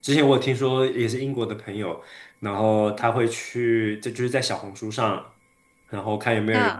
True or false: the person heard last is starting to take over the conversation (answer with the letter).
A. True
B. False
B